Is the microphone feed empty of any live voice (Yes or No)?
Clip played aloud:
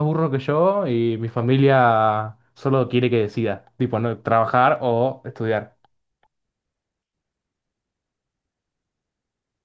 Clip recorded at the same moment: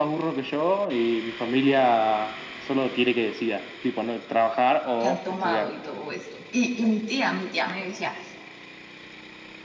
No